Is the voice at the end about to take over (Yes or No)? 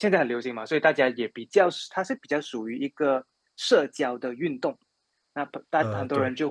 No